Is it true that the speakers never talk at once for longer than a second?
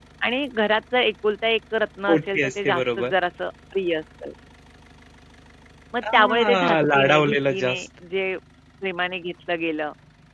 No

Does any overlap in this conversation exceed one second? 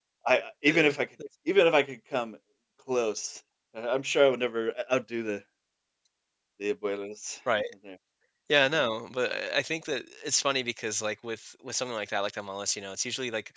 No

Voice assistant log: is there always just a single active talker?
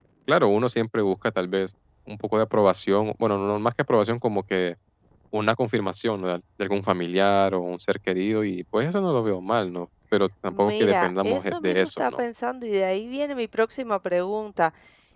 No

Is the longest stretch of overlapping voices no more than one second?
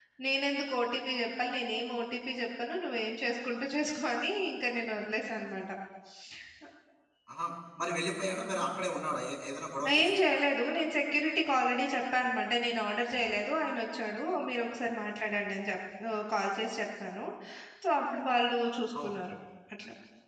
Yes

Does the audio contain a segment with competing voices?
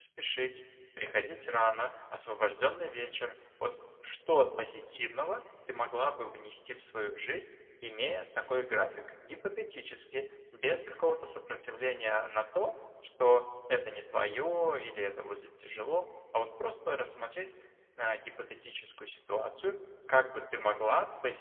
No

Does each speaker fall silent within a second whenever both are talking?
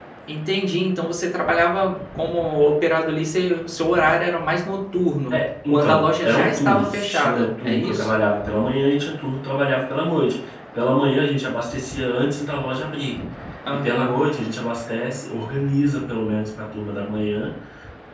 No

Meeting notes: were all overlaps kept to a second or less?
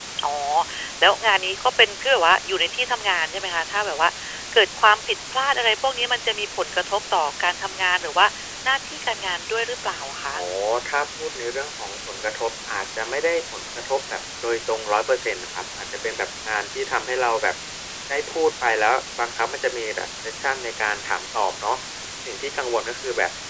Yes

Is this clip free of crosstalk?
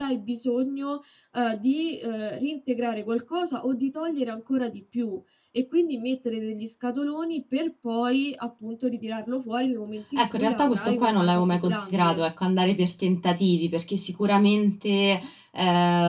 No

